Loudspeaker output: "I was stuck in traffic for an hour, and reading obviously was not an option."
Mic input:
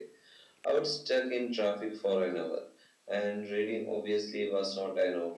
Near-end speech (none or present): none